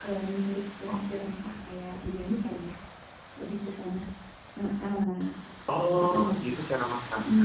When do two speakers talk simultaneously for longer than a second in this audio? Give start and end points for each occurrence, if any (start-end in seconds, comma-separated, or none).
none